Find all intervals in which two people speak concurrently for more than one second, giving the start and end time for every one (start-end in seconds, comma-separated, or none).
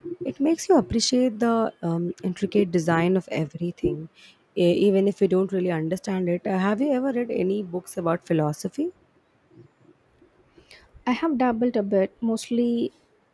none